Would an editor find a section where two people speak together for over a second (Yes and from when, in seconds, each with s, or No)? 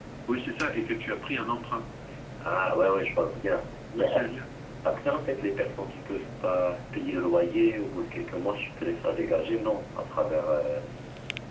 No